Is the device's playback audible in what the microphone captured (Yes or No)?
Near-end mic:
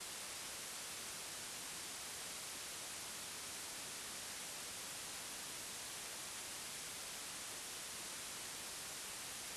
No